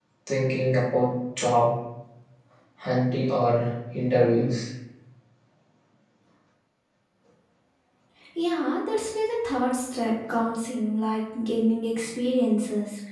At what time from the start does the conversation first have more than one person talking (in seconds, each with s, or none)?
none